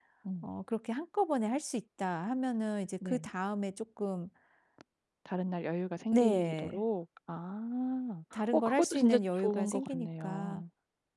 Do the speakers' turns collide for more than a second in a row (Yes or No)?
Yes